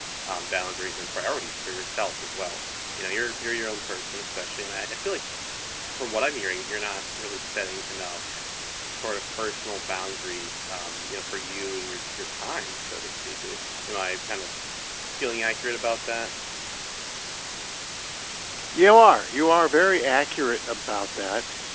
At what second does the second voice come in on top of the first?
none

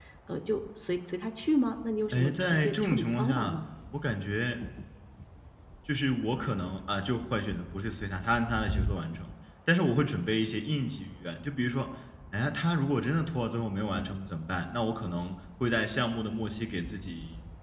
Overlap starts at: 2.1 s

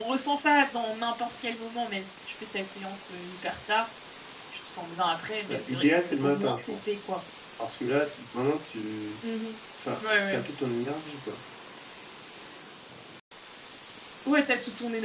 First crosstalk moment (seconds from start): 5.5 s

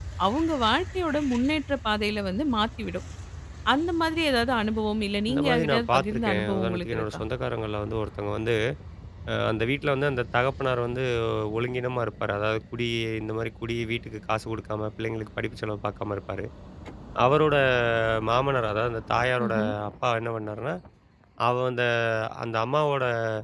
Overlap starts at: 5.3 s

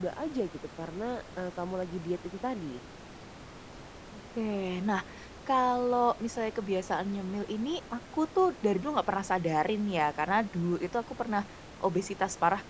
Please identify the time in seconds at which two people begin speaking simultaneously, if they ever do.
none

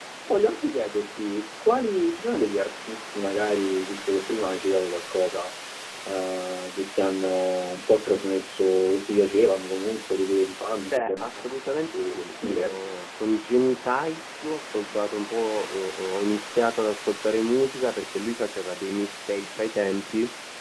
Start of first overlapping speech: 10.9 s

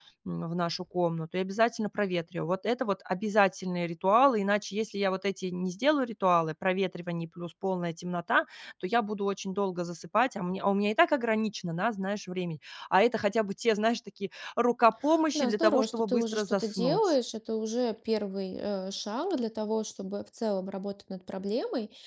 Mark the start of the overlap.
15.3 s

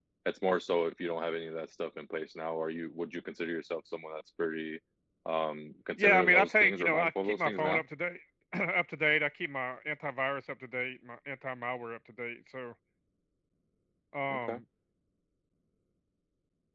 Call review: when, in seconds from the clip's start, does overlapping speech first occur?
6.0 s

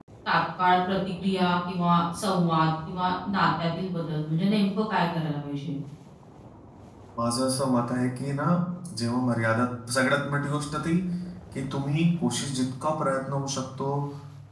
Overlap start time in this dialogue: none

